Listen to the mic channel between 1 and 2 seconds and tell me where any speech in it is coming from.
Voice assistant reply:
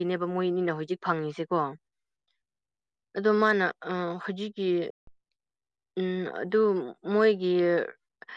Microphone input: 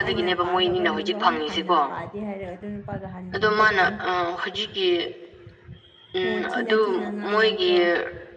both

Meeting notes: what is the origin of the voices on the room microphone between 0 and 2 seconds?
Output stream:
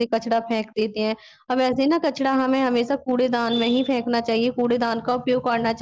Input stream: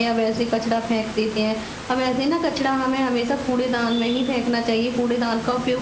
echo only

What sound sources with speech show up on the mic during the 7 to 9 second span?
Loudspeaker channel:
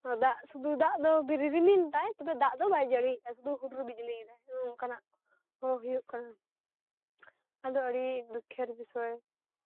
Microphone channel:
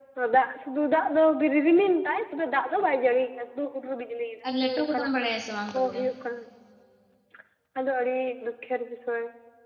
echo only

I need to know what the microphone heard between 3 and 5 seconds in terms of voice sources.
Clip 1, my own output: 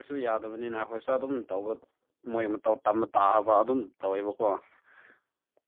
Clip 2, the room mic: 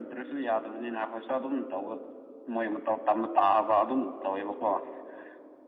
echo only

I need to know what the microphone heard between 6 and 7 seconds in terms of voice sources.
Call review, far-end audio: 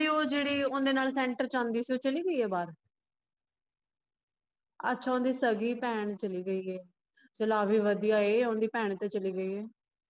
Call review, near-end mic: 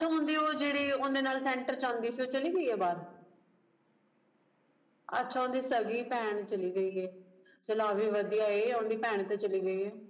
echo only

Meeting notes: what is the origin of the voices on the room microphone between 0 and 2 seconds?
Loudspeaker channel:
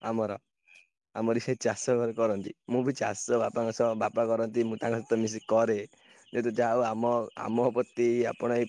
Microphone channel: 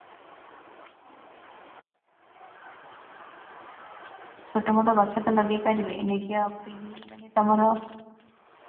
neither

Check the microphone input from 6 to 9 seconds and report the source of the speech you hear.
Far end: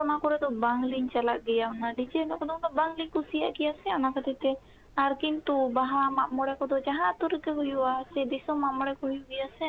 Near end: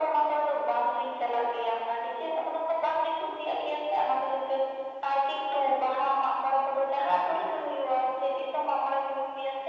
echo only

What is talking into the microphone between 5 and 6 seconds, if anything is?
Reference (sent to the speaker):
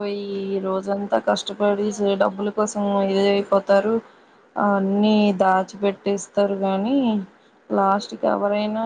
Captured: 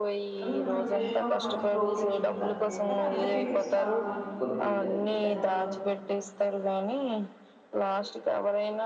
both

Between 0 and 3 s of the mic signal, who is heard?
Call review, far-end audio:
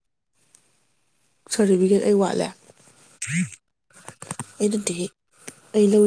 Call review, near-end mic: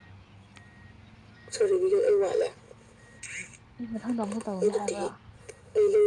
echo only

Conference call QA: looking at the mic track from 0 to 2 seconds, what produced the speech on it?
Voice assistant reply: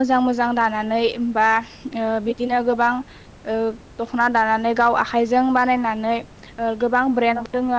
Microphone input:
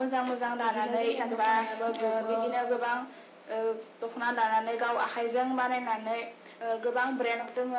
both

